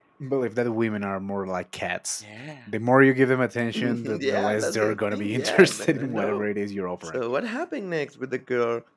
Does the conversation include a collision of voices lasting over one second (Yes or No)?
Yes